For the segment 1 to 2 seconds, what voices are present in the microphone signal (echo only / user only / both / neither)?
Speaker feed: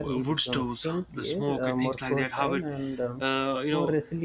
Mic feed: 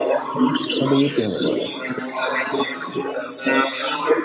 both